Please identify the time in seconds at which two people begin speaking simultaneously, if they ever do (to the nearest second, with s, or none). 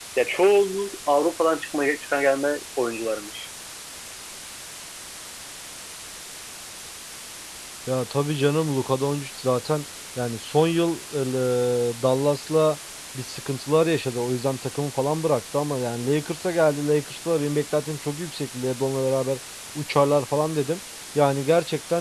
none